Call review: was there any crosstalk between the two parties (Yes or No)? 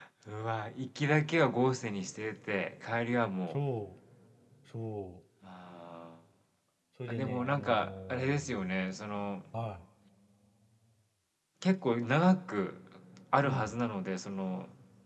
Yes